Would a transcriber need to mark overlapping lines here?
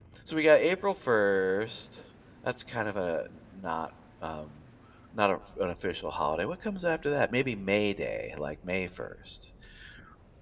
No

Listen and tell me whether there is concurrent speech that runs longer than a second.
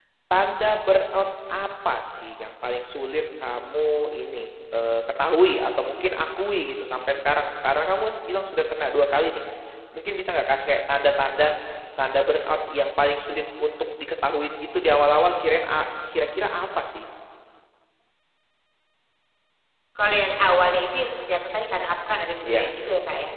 No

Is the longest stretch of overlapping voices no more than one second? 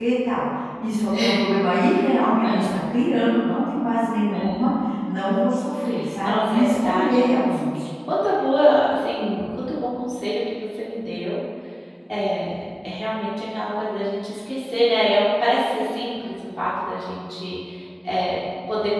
No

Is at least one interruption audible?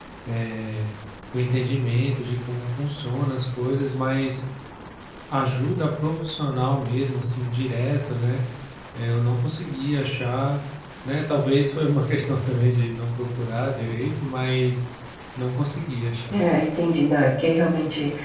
No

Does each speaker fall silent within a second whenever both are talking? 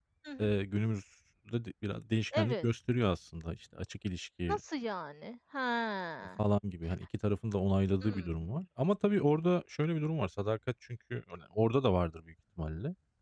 Yes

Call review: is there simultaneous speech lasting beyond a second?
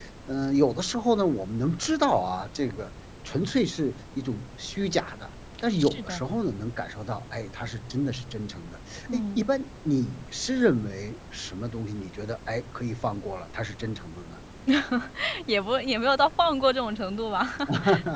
No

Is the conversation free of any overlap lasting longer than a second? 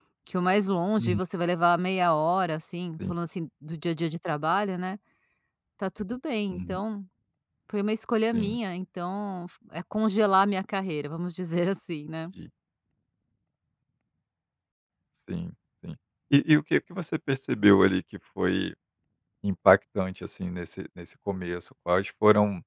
Yes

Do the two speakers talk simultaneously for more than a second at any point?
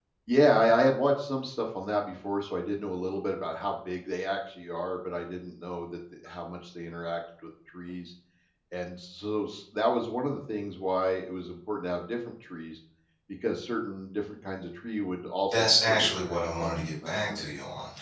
Yes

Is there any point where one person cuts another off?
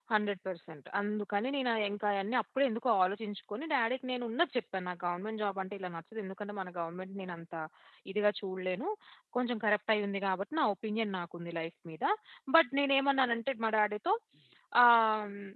No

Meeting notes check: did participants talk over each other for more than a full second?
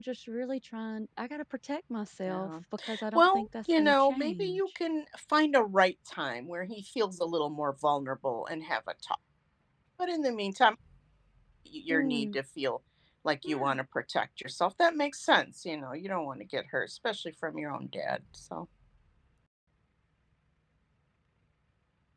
Yes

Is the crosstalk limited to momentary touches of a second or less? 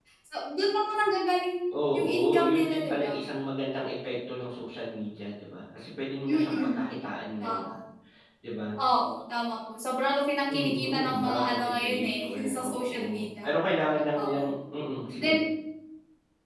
No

